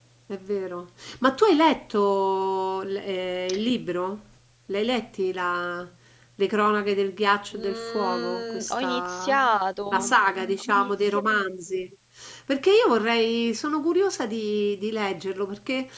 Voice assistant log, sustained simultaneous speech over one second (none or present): present